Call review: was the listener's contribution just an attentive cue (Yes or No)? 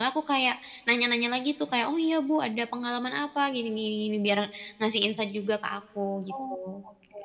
No